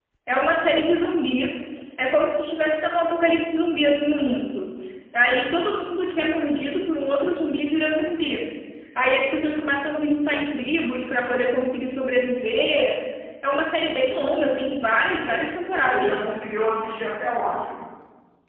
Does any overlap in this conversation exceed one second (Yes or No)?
No